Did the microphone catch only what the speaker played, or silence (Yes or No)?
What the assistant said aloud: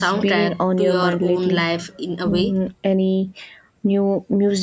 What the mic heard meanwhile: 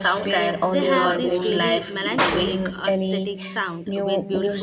No